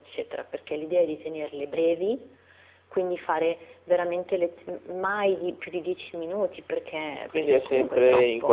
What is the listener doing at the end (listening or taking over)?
taking over